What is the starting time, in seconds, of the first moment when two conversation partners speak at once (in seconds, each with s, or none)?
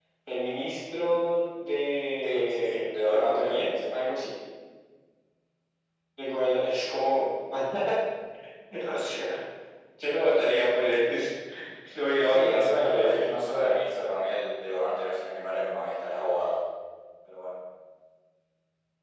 2.2 s